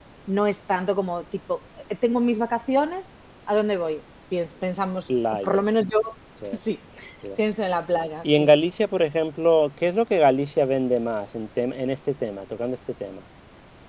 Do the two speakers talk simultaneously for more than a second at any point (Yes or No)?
No